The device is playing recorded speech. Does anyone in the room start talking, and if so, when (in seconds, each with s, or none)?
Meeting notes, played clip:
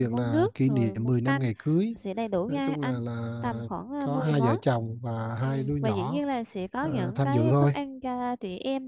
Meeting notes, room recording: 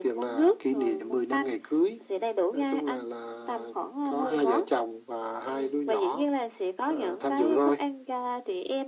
none